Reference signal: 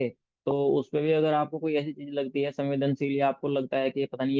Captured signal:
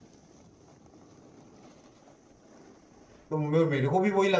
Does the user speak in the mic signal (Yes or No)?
Yes